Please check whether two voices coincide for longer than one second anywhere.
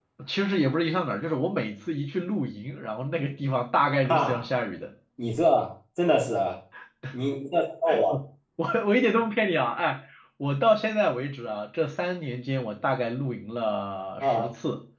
No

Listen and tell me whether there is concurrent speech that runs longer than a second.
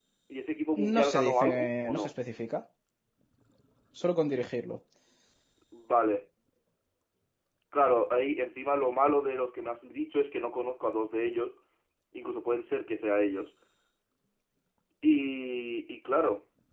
Yes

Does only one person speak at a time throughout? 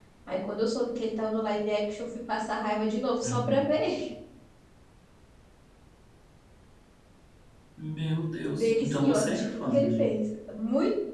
No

